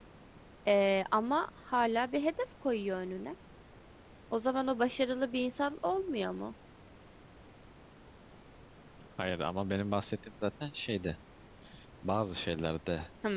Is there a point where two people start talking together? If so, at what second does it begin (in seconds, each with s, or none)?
none